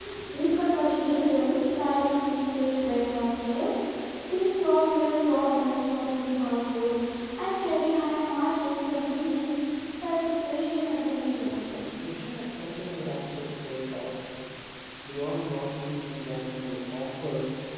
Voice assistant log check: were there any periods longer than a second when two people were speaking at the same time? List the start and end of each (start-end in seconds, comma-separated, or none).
none